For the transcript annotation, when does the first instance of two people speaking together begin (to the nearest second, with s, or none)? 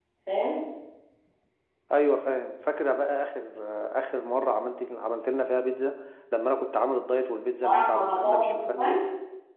8 s